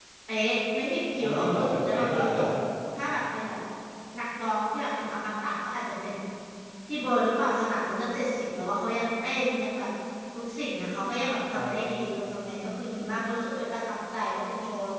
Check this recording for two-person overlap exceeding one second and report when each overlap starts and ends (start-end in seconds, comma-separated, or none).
1.2-2.4